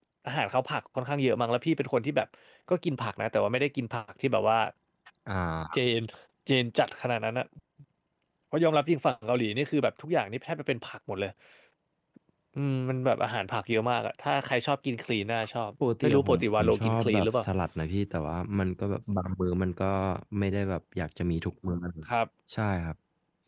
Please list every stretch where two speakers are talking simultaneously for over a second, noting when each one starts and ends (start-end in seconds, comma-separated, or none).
16.0-17.4